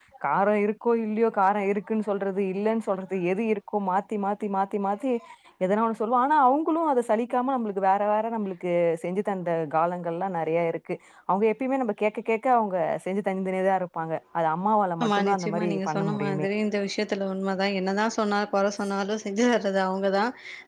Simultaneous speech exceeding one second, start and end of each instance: 15.0-16.5

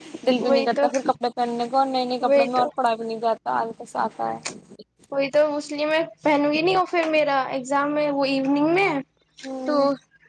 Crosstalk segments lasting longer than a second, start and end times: none

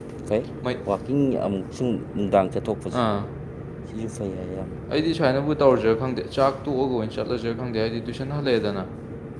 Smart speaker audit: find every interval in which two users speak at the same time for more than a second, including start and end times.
none

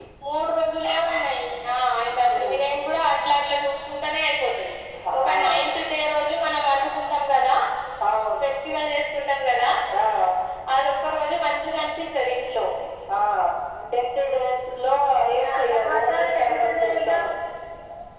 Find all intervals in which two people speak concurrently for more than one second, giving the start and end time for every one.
15.4-17.1

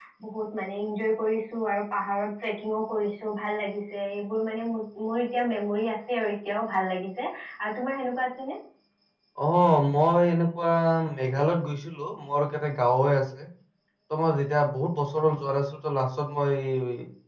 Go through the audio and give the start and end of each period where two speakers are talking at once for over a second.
none

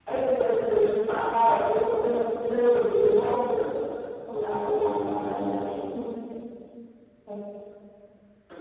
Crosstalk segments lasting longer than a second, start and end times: 4.3-5.6

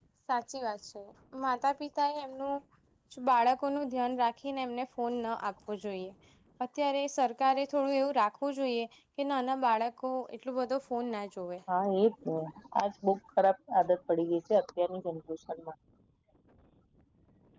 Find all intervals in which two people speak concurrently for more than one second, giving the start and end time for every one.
none

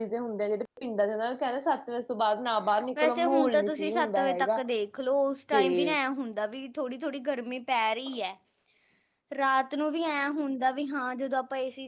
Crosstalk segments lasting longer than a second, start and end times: 3.0-4.6

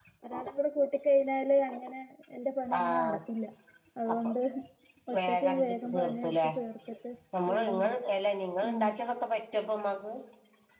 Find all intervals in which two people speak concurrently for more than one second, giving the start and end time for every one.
5.3-6.5

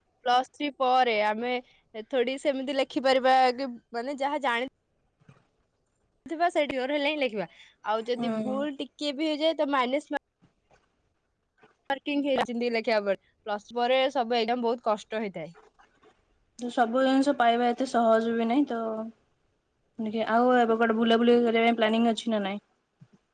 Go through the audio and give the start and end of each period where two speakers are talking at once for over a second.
none

